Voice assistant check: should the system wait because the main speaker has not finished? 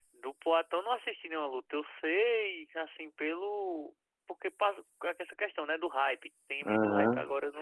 No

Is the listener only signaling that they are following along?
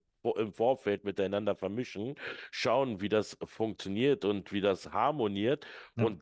Yes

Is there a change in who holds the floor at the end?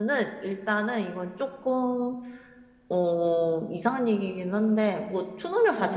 No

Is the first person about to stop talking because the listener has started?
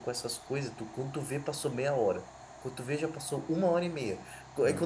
No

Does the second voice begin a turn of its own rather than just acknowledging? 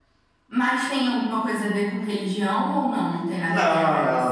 Yes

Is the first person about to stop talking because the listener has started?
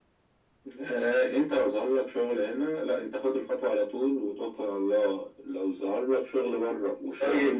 Yes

